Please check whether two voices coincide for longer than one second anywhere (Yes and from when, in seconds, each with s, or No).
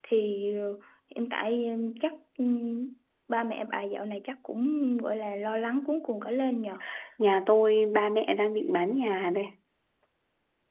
No